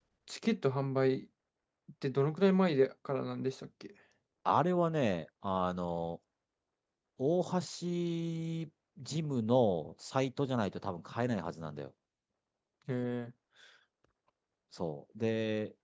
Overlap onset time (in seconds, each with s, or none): none